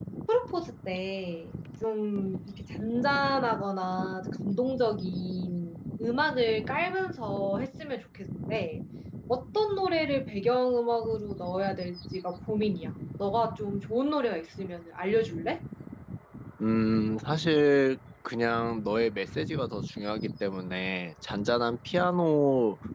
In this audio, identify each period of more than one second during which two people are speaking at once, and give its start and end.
none

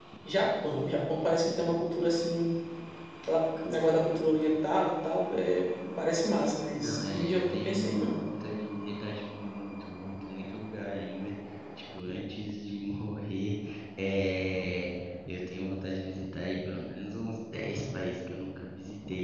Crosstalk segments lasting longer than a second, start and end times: 6.8-8.2

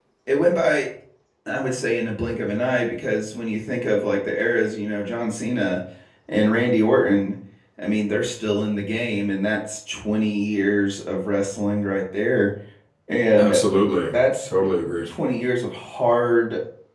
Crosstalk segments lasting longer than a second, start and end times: none

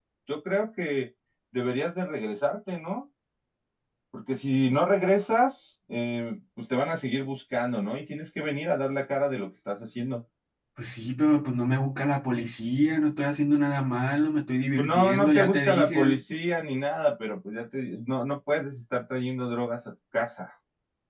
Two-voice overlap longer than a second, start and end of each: 14.8-16.2

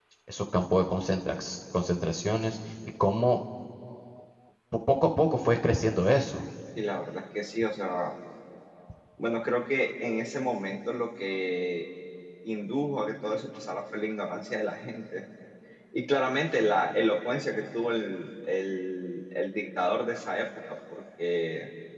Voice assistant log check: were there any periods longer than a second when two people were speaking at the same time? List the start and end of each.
none

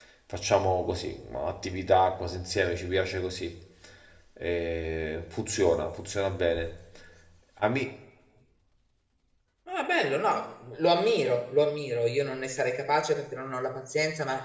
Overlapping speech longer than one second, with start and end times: none

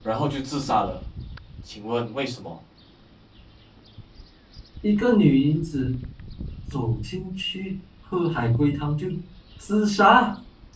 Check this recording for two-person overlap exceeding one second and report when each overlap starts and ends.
none

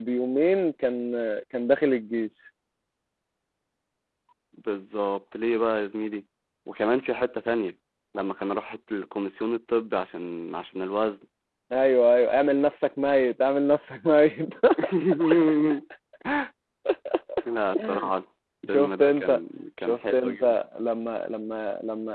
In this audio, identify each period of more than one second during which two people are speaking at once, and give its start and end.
18.7-20.4

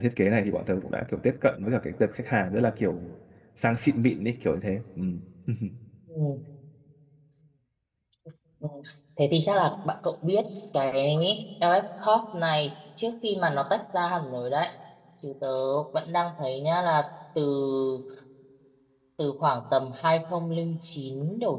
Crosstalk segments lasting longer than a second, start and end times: none

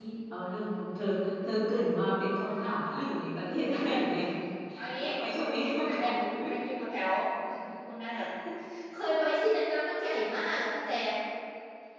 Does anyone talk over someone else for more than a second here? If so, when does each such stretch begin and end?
none

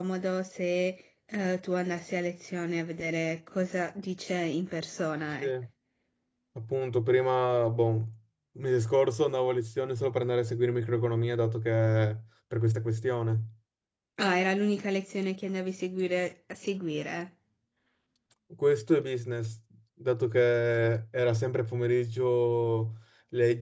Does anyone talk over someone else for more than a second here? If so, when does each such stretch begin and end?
none

